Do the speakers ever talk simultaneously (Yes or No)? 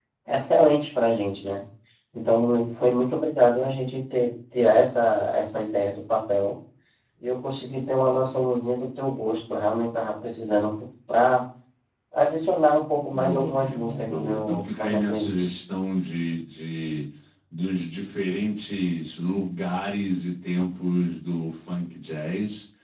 Yes